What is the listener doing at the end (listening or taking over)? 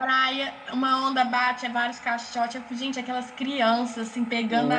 listening